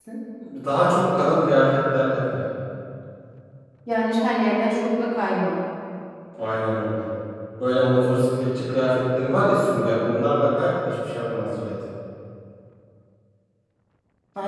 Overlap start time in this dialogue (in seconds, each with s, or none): none